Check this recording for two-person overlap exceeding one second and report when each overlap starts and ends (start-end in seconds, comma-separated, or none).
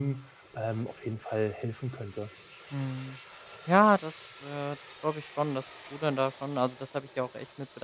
none